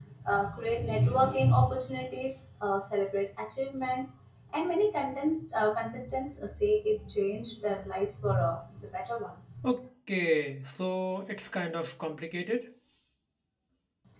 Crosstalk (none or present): none